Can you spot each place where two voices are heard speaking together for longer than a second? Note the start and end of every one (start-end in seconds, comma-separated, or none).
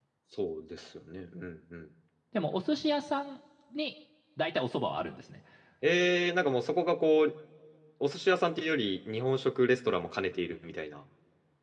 none